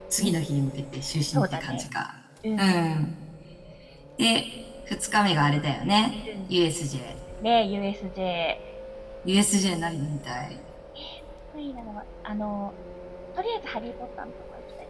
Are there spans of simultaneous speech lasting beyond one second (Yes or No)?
No